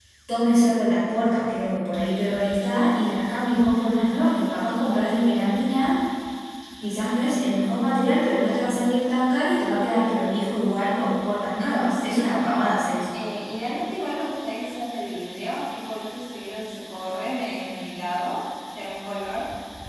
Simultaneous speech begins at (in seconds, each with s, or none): 11.9 s